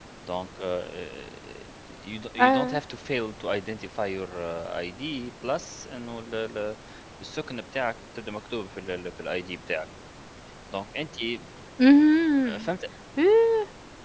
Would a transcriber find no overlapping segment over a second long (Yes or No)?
Yes